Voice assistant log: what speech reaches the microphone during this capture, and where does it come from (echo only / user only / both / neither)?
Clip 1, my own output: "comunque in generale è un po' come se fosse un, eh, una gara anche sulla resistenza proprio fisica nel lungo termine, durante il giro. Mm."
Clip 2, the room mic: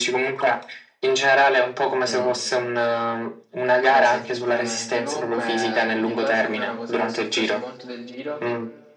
both